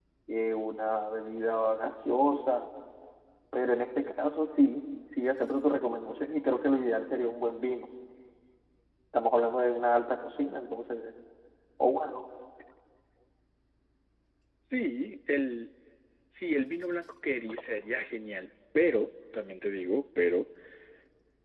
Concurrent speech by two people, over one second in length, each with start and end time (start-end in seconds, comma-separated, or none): none